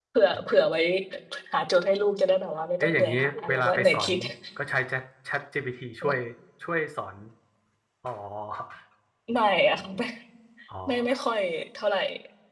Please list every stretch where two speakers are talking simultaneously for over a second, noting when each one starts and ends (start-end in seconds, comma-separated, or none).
2.8-4.1